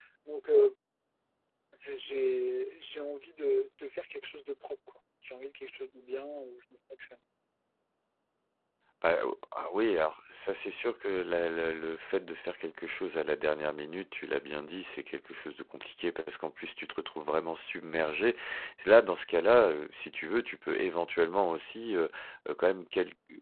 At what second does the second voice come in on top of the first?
none

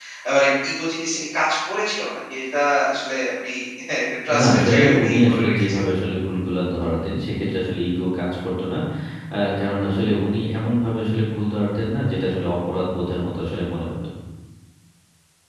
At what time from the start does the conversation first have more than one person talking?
4.4 s

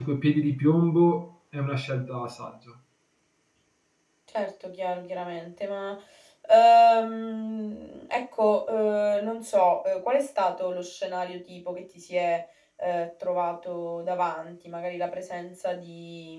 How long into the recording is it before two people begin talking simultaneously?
none

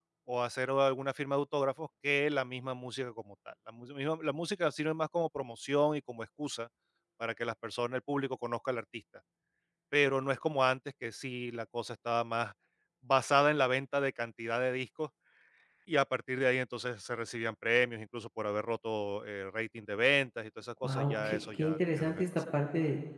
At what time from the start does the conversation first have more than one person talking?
20.8 s

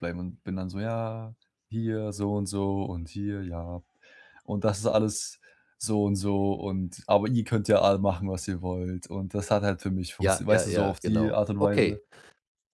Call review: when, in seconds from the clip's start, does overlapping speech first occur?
10.2 s

